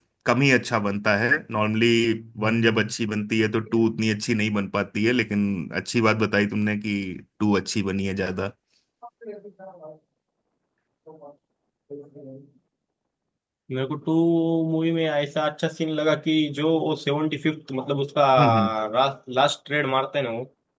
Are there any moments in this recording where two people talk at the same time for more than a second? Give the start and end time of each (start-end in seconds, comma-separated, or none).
none